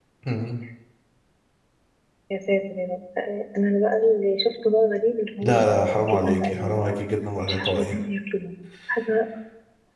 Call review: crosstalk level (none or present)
present